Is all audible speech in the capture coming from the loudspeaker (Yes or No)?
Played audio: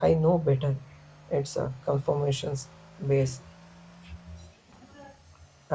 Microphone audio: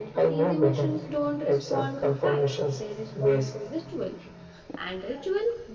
No